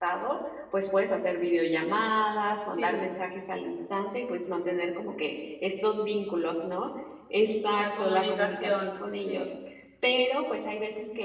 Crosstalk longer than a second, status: present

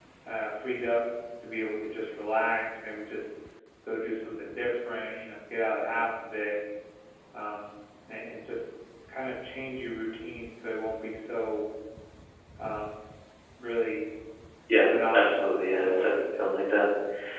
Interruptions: present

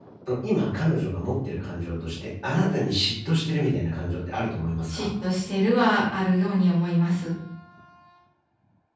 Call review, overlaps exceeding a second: none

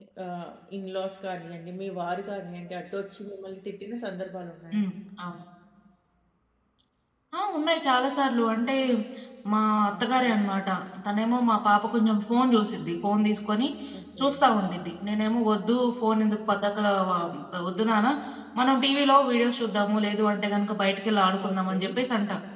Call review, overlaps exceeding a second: none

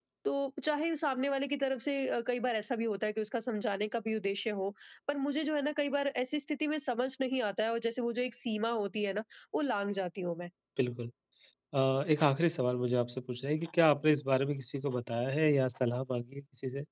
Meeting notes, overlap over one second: none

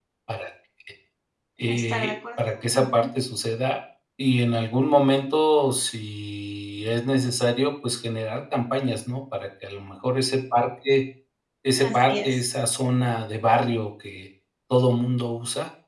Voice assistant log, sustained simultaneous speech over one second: present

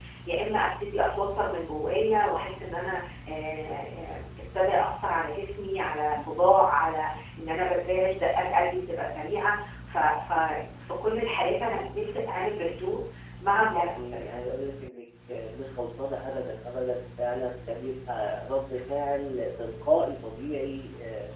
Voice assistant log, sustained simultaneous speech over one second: none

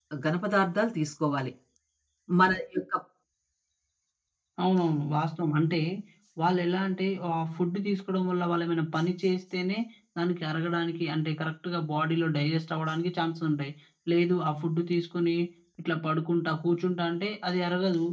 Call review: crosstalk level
none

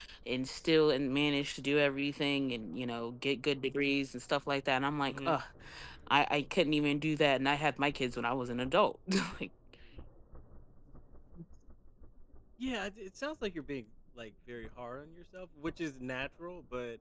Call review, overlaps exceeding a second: none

